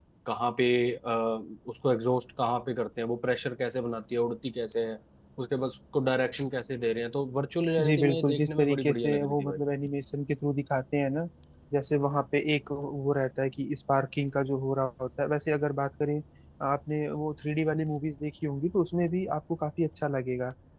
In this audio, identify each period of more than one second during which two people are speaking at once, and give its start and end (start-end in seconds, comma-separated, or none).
7.8-9.6